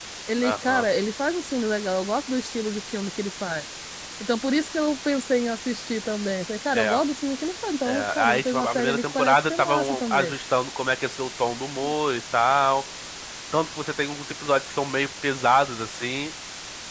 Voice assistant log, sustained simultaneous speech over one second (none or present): present